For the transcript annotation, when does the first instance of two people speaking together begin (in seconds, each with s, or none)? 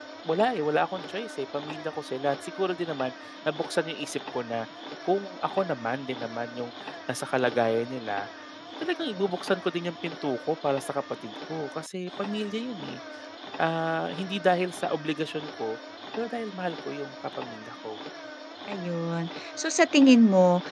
none